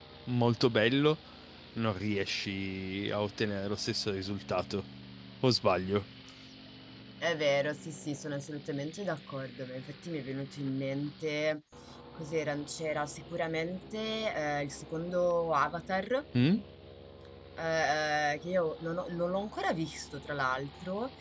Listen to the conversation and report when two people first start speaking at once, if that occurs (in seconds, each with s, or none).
none